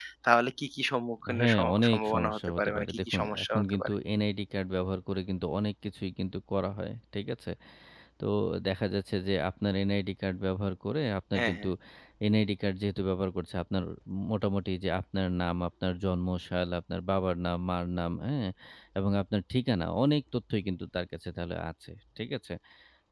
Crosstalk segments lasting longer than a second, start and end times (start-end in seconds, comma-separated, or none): 1.4-3.9